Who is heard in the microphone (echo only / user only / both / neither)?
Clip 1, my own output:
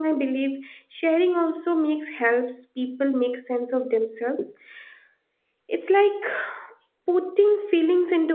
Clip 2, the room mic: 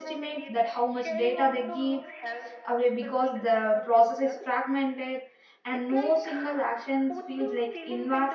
both